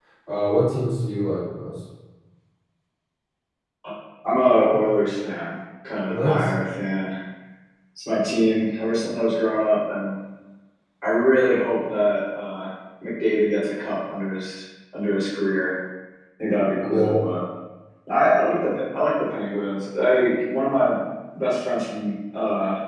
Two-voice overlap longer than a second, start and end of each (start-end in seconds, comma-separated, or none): none